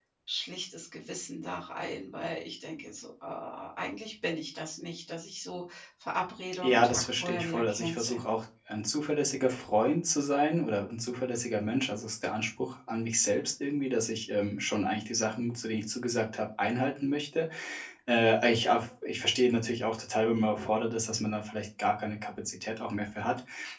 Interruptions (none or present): present